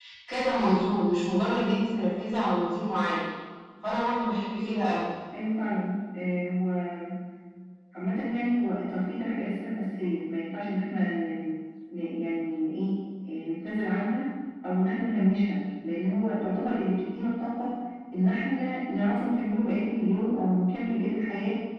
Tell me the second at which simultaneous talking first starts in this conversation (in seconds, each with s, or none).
none